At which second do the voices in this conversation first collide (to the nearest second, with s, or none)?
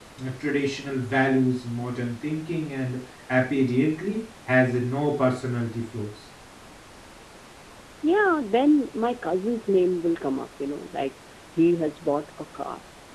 none